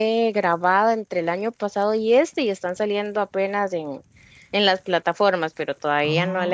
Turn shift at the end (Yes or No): No